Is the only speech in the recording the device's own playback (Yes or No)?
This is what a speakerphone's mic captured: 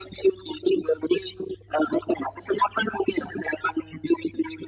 Yes